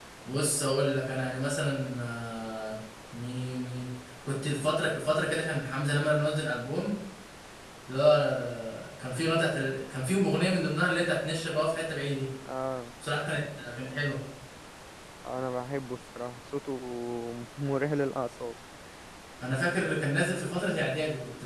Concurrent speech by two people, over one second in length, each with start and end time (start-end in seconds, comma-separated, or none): none